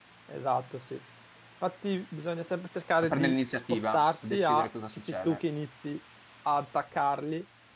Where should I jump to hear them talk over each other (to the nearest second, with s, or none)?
3 s